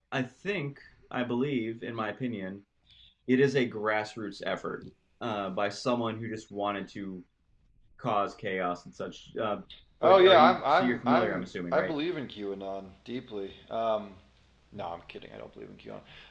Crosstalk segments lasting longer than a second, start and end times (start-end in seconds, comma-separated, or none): 10.0-11.9